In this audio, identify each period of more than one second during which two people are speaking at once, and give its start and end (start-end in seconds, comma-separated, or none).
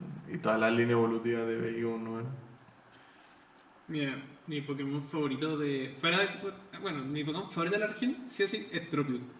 none